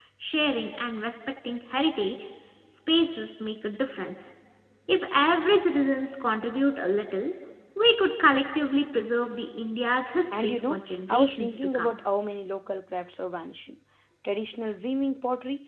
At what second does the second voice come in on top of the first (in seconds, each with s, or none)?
10.3 s